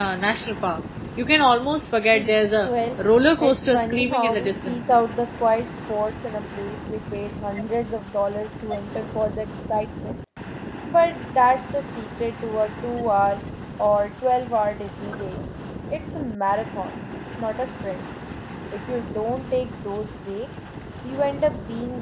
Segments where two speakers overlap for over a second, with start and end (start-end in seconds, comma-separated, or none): 3.4-4.9